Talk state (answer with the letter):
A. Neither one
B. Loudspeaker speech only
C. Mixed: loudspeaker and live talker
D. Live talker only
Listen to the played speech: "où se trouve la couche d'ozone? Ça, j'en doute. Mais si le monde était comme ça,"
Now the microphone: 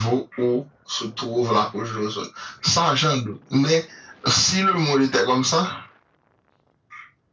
B